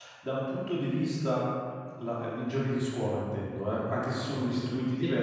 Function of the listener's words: listening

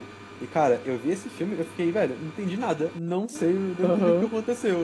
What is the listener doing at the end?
listening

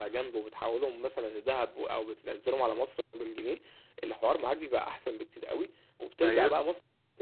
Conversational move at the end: listening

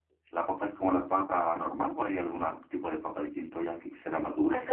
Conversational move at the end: taking over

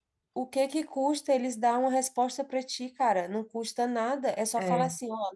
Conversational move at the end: listening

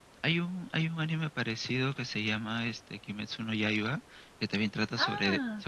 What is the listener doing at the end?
listening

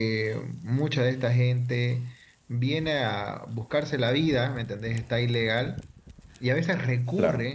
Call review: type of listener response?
listening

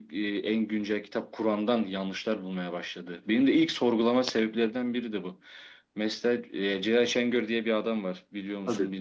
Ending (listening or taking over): taking over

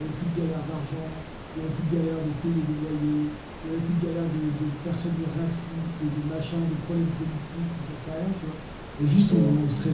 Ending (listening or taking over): listening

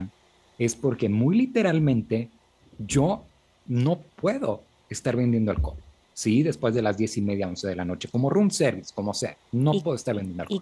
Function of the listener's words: taking over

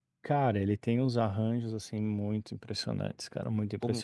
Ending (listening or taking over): taking over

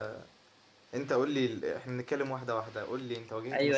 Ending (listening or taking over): taking over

